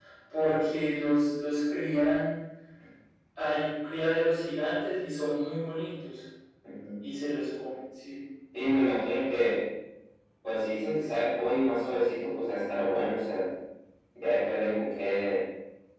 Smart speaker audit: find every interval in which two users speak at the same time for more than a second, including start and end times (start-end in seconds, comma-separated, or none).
none